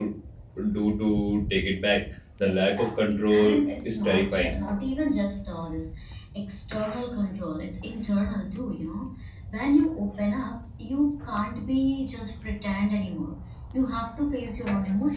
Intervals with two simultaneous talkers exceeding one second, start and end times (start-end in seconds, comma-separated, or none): 2.5-4.6